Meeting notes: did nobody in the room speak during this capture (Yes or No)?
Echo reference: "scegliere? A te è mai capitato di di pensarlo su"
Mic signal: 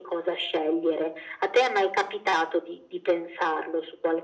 Yes